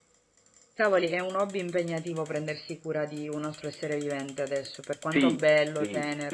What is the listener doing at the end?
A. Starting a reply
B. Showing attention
A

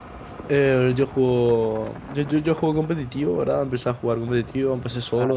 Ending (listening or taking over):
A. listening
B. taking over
A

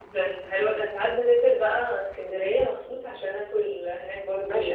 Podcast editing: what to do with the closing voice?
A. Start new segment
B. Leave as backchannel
A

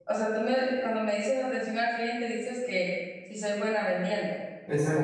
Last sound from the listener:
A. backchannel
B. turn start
B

